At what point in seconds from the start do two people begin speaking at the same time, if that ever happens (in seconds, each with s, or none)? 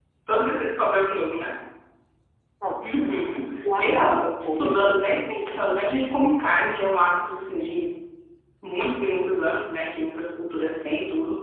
3.8 s